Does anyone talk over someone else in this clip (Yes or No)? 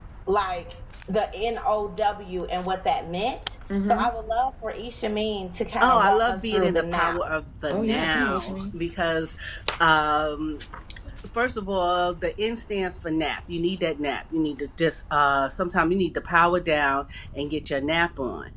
Yes